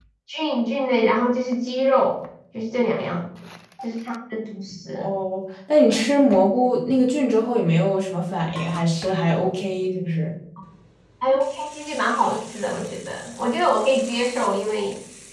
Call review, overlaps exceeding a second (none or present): none